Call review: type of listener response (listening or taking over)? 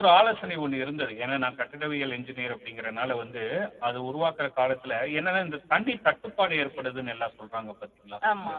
listening